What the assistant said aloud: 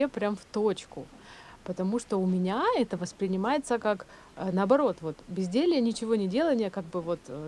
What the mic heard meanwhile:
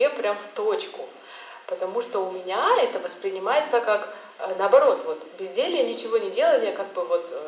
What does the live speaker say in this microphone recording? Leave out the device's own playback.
none

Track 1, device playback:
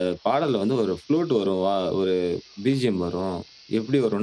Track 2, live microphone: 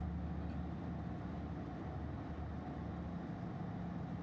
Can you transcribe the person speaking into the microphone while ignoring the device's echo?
none

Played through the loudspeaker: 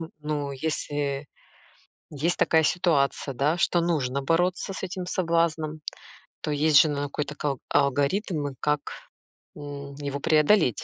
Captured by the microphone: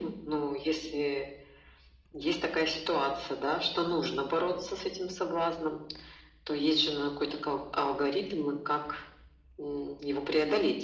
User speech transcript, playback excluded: none

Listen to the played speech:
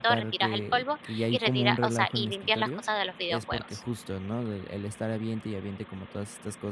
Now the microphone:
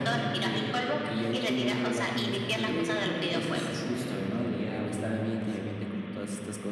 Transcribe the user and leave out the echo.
Pero yo creo que sí s me aventaría unas

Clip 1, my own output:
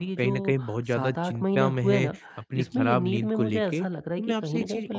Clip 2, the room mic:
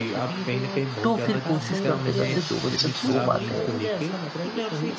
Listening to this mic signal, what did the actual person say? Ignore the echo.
तो फिर कोशिश करते-करते 2 बजे तक सो पाते हैं

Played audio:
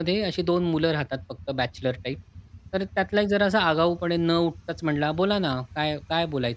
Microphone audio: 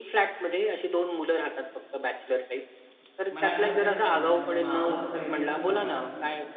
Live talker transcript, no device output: मला आठवतंय अ, माझ्या मावस बहिणीचा नवरा

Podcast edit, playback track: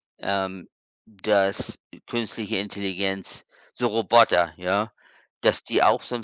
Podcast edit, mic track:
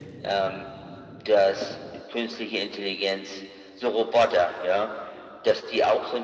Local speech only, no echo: none

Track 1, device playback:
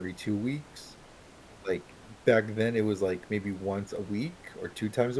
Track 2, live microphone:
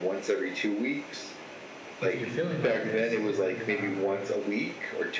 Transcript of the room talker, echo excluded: if you're feeling like this, then um,

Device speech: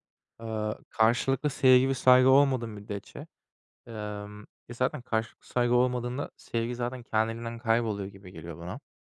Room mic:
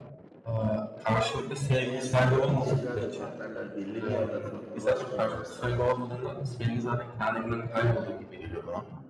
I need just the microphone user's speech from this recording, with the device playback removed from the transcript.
eğer zaten ilişkilerde partnerler belli bir yerde farklılaşmıyorlarsa,

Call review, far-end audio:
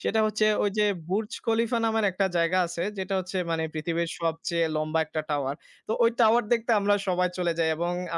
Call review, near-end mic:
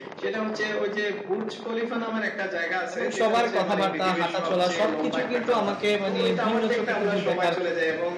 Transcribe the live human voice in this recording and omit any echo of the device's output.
এবং সবার কথাবার্তা, হাঁটাচলা সবকিছু কিন্তু আমাকে মানে ভিন্ন চোখে কিন্তু দেখার

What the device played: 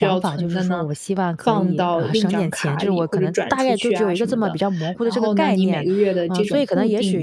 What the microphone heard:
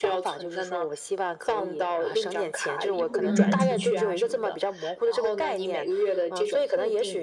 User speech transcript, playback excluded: 嗯，

